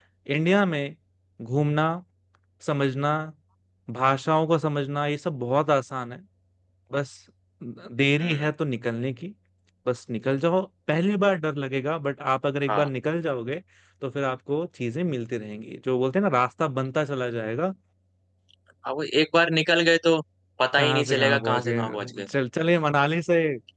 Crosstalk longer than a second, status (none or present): present